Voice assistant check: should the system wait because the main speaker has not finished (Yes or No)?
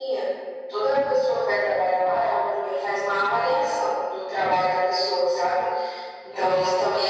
Yes